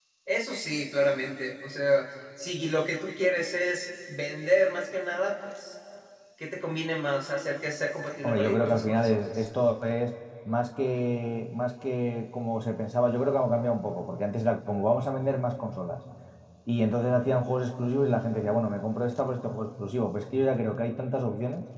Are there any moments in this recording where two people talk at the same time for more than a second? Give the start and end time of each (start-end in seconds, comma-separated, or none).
8.2-9.4